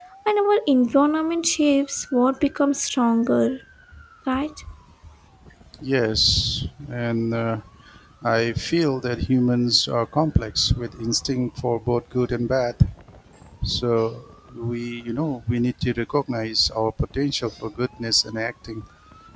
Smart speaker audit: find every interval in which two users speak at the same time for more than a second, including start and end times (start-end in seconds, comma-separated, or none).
none